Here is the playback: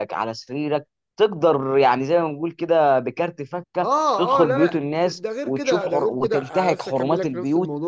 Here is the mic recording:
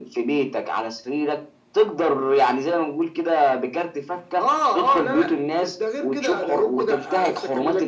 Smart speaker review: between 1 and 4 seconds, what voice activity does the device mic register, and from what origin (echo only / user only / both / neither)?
echo only